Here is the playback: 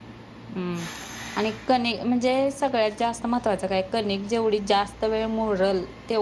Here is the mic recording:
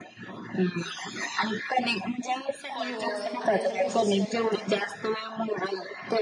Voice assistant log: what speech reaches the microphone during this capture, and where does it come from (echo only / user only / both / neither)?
both